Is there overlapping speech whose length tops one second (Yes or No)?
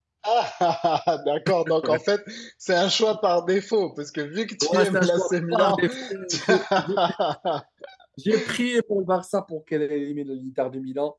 Yes